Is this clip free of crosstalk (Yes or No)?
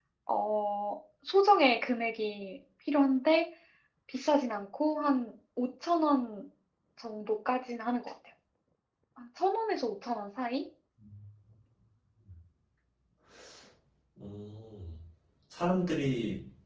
Yes